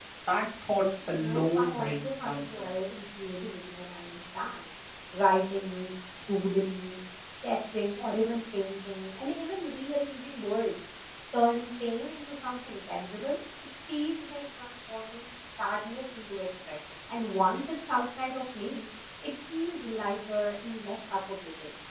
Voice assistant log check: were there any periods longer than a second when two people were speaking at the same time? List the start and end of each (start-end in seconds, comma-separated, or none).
1.1-2.7